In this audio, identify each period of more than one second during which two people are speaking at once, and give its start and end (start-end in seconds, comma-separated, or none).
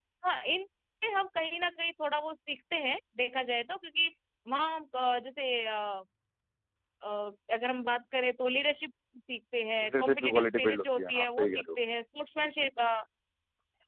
9.8-11.6